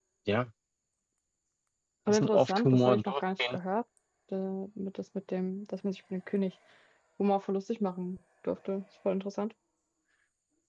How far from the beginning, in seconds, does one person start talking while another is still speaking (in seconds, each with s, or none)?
2.1 s